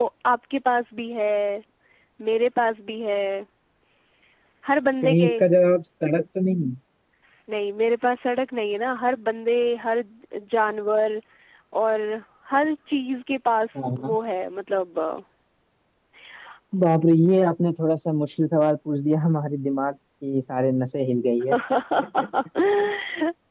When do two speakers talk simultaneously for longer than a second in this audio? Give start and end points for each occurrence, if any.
none

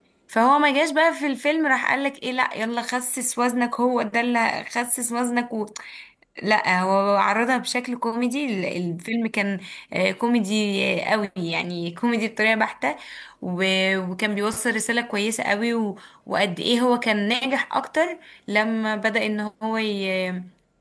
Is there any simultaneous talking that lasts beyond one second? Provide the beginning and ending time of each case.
none

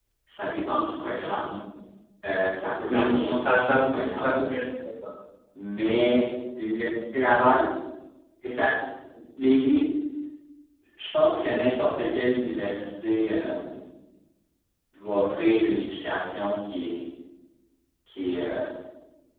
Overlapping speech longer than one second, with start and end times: 2.9-4.4

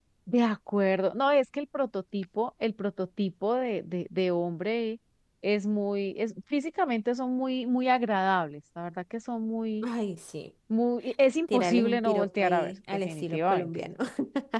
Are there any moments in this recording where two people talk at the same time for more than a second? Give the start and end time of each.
11.5-13.7

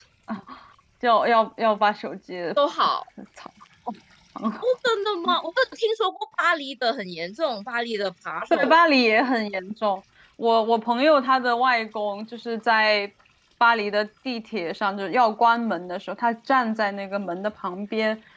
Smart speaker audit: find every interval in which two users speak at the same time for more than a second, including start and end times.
none

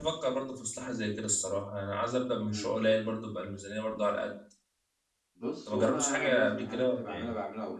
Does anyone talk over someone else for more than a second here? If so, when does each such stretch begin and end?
5.7-7.3

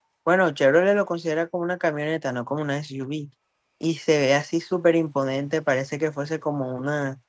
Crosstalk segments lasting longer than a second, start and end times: none

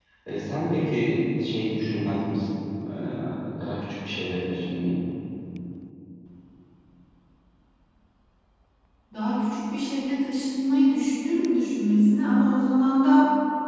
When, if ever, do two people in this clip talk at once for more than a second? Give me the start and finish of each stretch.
none

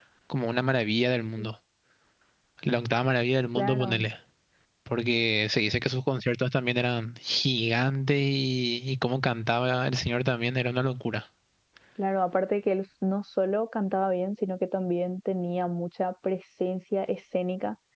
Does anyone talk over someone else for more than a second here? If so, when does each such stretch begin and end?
none

